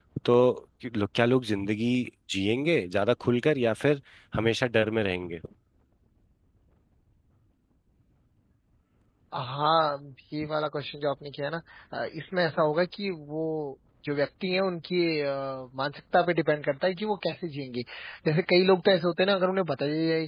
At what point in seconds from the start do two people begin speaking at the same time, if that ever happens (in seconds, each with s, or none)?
none